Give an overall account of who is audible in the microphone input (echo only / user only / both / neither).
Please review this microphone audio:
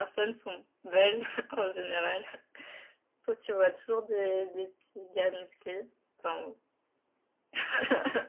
echo only